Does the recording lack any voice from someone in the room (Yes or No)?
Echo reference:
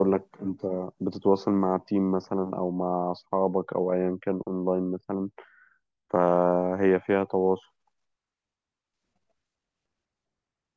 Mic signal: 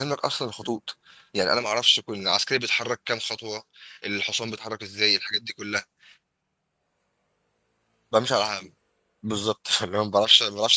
No